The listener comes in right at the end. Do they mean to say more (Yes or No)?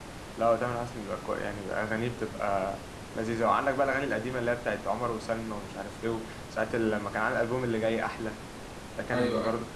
No